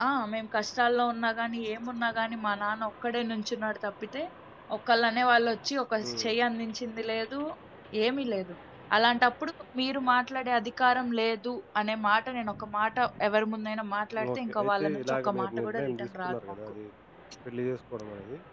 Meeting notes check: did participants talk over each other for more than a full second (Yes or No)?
Yes